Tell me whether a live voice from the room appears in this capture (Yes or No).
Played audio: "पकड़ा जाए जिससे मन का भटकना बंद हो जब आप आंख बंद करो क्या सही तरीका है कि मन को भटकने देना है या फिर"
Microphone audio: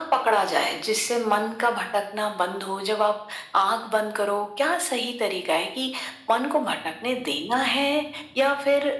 No